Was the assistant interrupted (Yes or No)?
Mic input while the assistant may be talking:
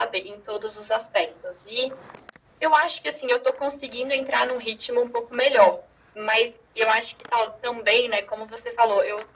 No